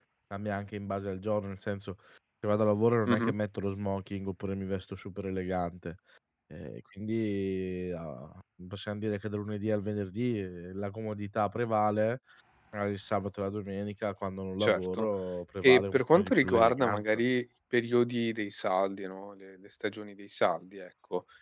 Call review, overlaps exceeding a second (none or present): present